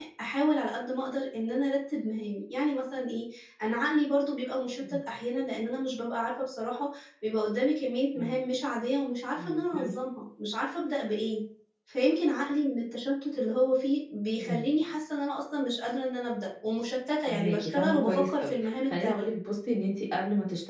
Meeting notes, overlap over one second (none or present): present